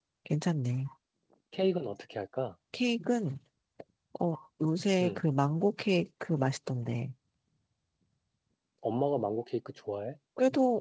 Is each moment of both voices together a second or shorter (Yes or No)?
Yes